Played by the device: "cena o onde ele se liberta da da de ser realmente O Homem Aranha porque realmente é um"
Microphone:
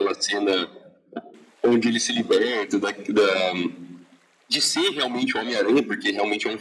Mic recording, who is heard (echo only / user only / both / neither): echo only